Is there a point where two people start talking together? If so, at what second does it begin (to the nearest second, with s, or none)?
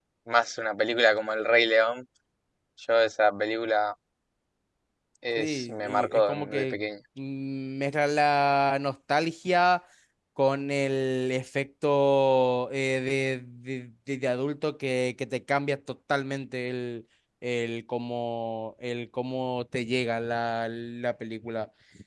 5 s